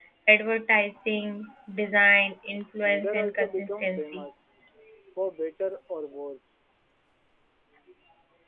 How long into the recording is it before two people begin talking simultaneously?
2.8 s

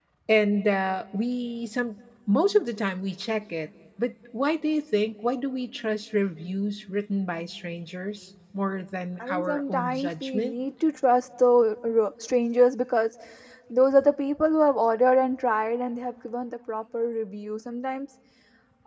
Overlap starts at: 9.2 s

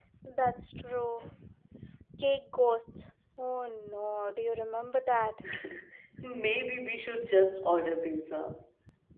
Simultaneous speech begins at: none

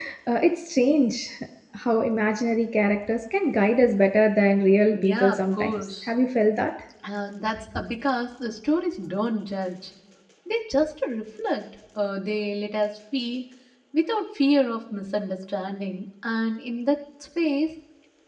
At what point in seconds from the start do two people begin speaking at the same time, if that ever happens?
4.9 s

